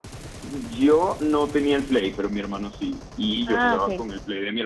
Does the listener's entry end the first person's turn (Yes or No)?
No